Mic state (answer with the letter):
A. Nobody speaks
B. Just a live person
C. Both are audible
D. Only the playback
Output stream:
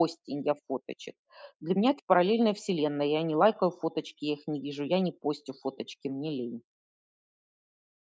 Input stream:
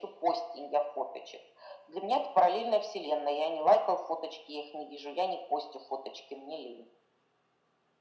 D